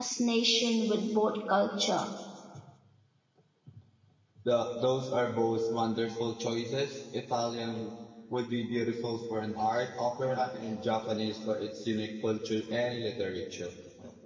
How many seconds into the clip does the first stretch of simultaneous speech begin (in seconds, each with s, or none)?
none